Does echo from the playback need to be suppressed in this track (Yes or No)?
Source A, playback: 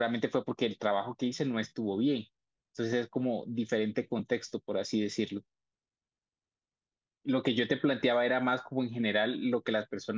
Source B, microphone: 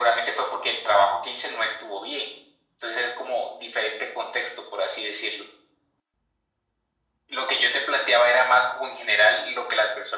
Yes